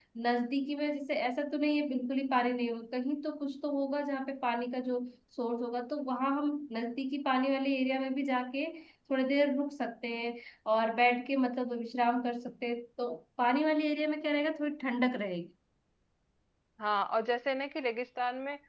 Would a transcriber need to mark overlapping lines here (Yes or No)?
No